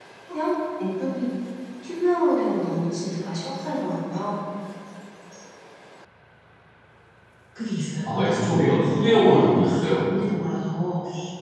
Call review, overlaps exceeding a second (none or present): present